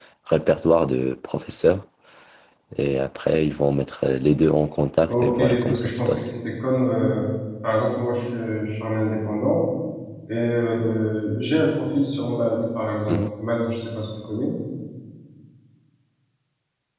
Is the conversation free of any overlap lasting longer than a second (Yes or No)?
No